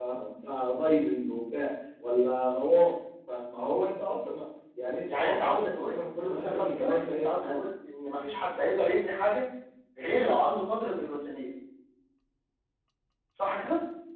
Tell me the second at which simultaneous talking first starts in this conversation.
5.1 s

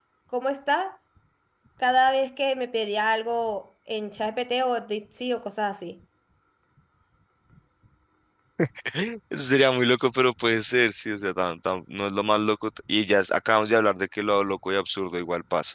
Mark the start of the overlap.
none

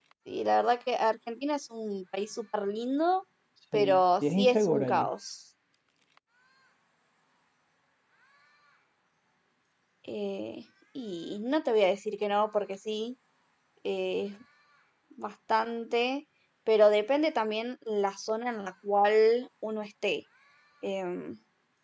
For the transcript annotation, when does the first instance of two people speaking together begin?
3.7 s

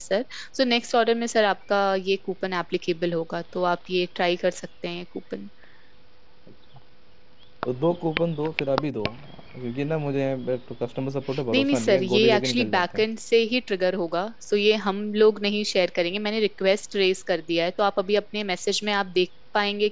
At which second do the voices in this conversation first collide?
11.5 s

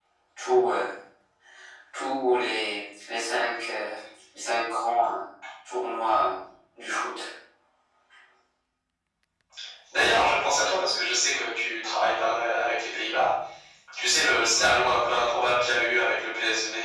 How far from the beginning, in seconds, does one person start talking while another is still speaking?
none

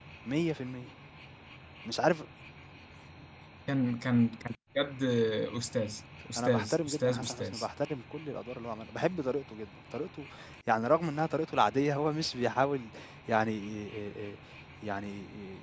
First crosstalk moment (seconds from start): 6.4 s

